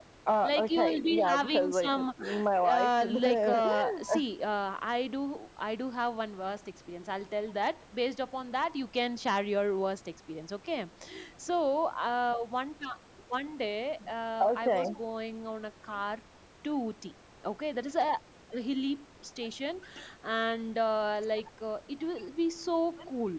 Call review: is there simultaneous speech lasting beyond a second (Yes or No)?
Yes